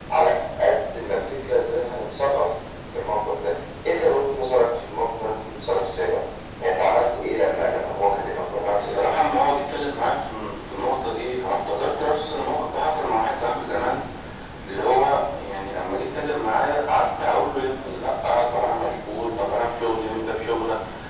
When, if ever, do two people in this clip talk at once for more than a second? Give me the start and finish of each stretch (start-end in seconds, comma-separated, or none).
none